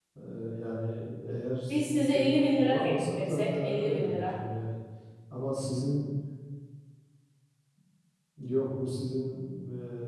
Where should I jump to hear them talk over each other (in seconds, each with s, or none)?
1.7 s